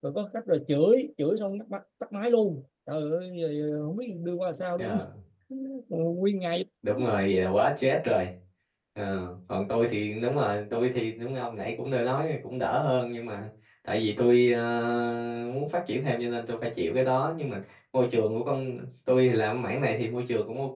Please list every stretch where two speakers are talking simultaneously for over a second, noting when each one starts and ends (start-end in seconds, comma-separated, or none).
none